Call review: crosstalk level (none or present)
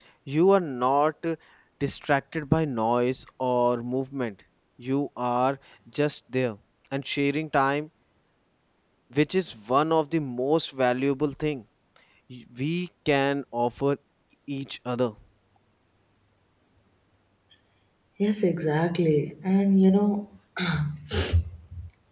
none